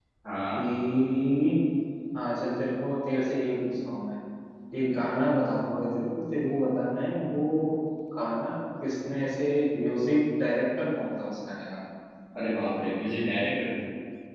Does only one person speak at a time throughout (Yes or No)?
Yes